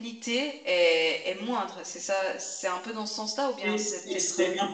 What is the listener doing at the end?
taking over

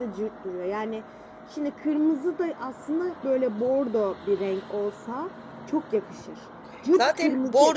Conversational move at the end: taking over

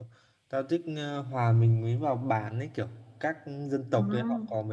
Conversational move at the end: listening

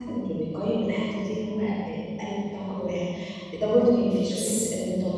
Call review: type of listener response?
listening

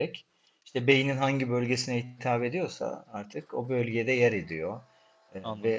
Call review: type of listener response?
listening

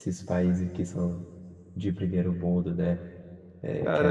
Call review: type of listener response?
taking over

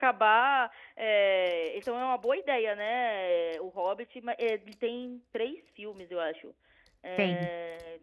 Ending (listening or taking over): listening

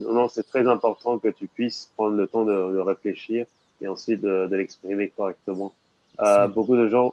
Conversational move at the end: listening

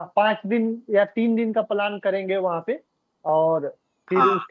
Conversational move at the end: listening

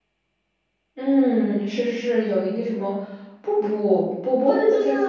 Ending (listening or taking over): taking over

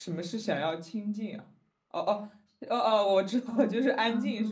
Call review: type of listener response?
taking over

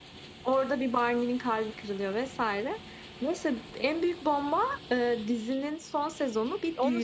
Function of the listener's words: taking over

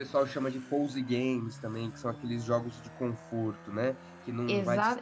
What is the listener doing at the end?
taking over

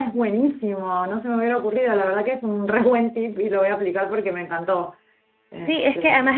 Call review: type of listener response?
taking over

